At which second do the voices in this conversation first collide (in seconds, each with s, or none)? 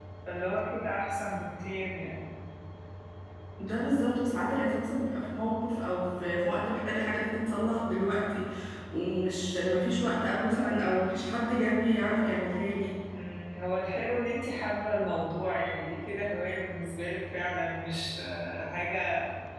none